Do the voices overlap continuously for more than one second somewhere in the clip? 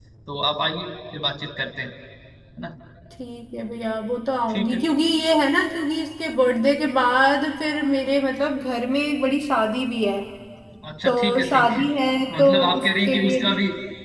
Yes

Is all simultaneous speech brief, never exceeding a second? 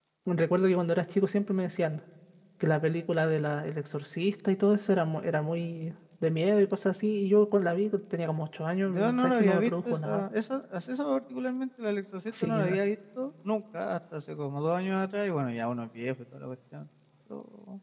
No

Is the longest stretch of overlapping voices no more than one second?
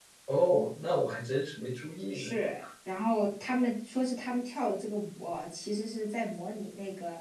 Yes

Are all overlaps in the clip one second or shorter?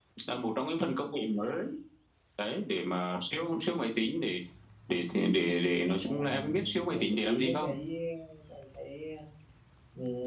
No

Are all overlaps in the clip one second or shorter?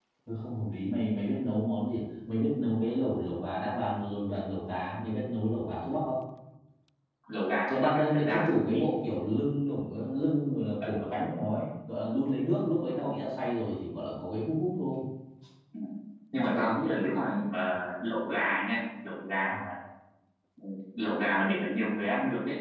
No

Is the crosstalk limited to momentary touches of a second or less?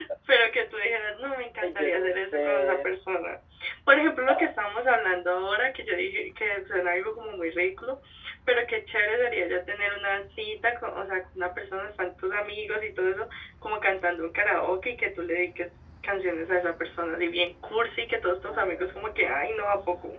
No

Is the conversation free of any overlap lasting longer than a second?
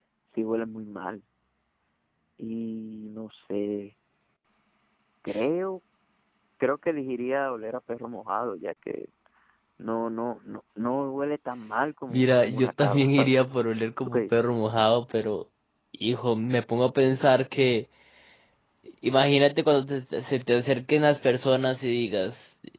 No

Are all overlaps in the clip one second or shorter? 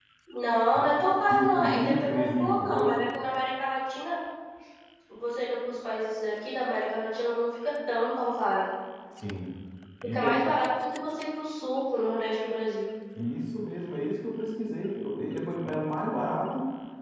No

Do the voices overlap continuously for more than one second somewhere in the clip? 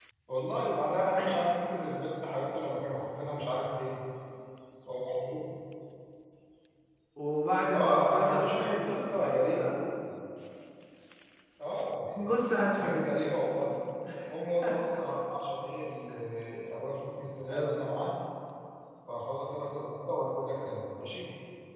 Yes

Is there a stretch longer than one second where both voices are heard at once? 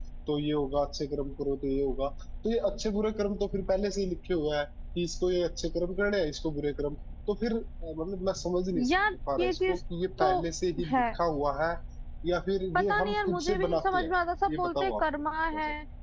Yes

